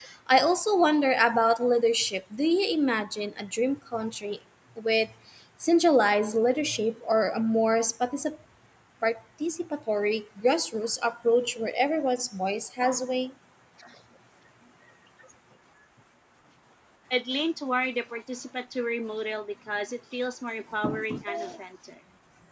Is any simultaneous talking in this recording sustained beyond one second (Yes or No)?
No